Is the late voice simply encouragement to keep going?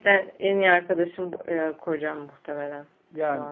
No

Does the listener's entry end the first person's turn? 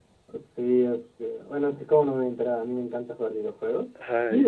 No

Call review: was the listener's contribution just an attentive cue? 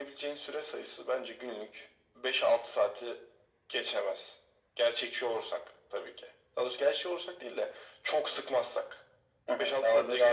No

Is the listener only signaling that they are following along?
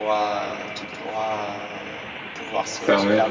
Yes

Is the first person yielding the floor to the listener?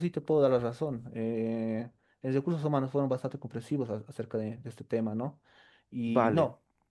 No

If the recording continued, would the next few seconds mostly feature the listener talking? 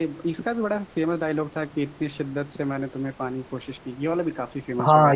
Yes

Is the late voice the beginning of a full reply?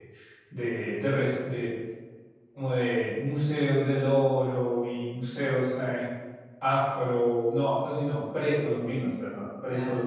No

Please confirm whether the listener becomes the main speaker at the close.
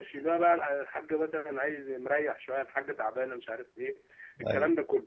No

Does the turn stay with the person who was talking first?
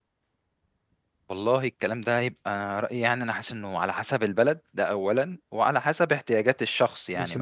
No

